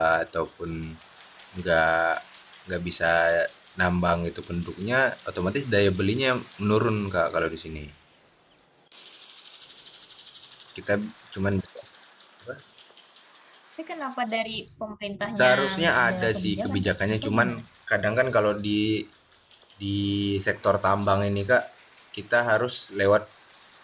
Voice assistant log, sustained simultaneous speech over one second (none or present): present